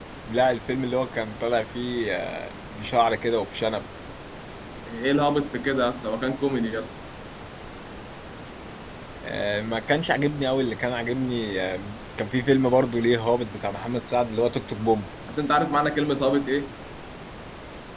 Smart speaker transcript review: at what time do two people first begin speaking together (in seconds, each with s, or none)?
none